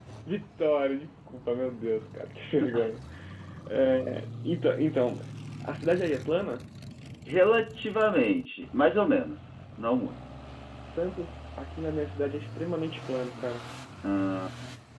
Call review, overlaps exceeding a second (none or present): none